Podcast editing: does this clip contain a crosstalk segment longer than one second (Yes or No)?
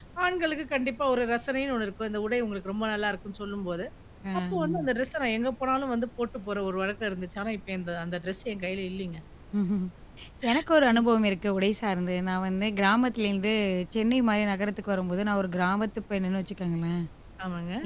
No